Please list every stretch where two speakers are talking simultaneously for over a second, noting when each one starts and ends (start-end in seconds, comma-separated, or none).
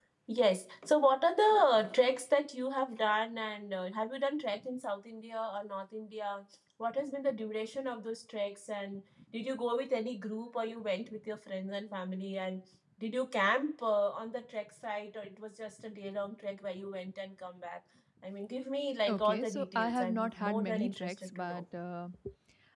19.1-21.6